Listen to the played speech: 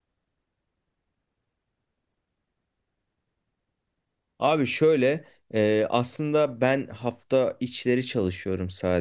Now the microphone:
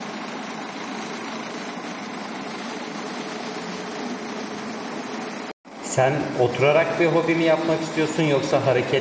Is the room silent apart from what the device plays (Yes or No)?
No